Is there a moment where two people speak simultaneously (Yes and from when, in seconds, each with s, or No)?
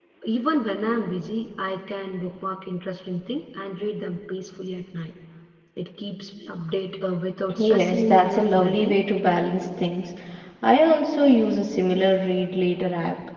Yes, from 7.5 s